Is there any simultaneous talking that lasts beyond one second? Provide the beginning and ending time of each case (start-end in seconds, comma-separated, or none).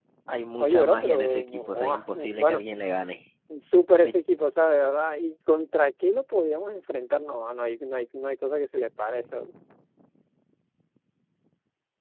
0.6-2.6